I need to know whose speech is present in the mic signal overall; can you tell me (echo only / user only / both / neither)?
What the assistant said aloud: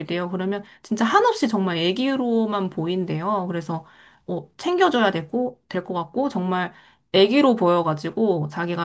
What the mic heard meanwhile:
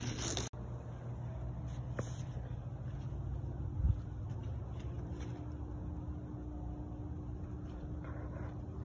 neither